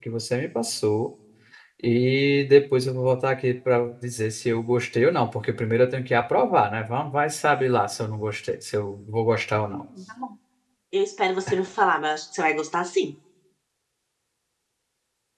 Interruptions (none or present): none